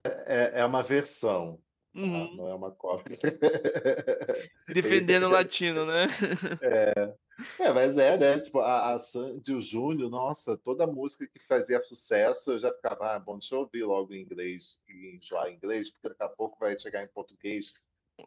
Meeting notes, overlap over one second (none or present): none